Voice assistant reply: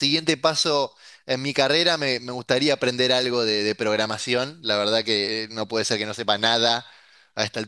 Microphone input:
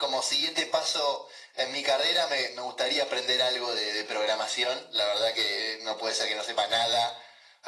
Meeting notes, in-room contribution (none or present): none